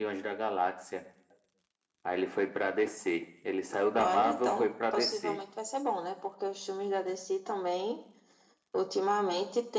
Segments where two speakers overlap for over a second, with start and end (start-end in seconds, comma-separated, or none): 4.0-5.4